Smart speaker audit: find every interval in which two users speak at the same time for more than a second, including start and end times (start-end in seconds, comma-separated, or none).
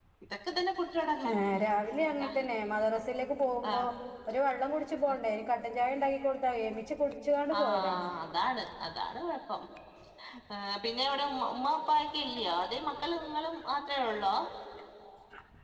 none